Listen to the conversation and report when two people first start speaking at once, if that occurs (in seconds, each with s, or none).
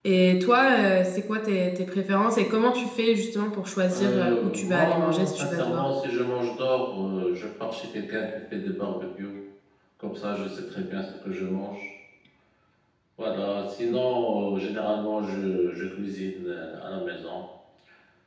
3.9 s